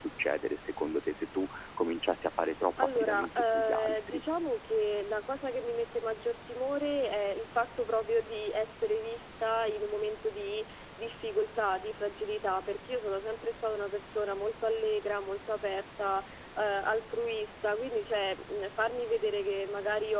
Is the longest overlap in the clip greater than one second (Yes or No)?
Yes